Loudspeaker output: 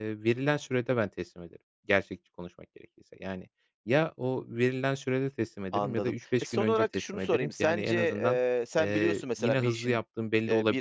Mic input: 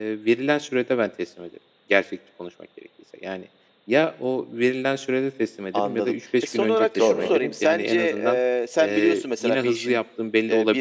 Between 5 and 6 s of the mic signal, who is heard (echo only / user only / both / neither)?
echo only